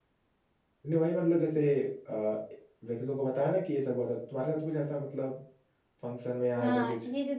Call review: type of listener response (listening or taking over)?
taking over